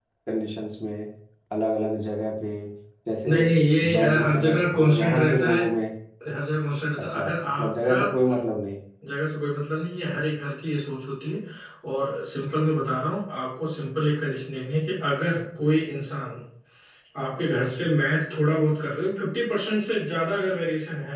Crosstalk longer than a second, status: present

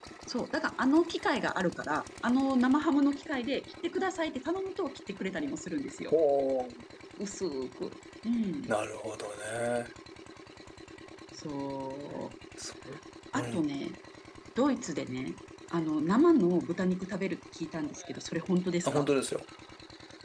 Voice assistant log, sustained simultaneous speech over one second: none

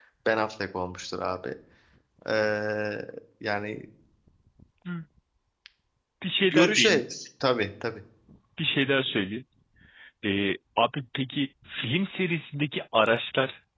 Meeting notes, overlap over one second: none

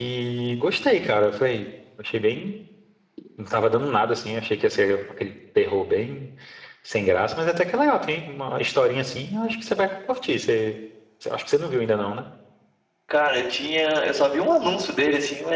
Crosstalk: none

